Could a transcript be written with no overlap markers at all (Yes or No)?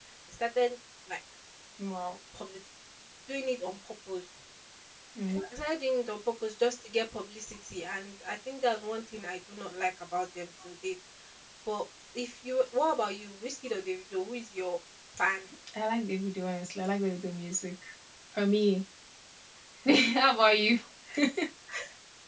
Yes